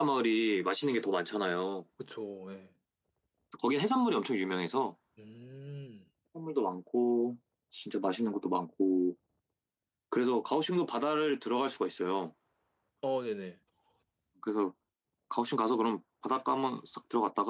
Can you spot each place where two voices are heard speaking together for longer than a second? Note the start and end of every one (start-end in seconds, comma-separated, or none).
none